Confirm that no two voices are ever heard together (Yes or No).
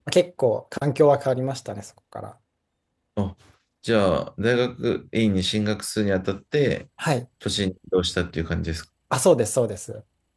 Yes